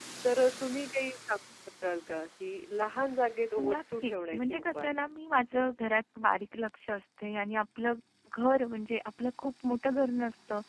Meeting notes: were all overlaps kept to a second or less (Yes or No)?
No